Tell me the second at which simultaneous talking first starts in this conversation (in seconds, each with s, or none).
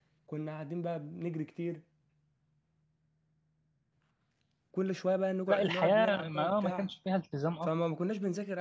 5.5 s